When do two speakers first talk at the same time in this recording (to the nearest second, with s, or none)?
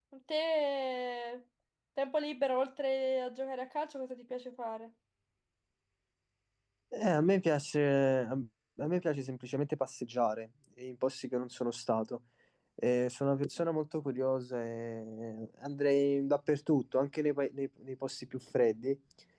none